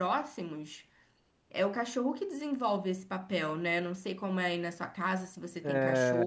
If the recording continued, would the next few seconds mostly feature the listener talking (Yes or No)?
Yes